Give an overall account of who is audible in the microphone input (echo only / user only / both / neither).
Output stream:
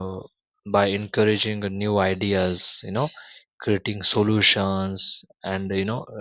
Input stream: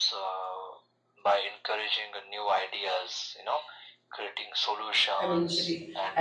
both